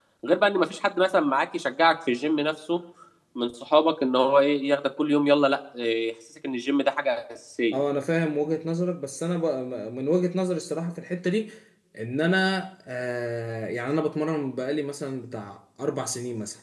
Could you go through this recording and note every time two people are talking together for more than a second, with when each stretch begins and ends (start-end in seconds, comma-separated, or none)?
none